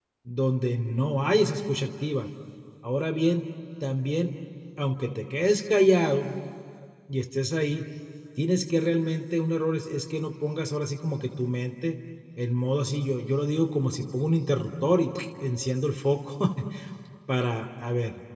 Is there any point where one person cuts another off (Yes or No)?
No